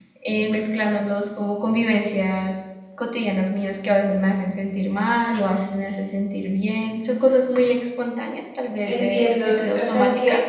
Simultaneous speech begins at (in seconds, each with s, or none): 8.8 s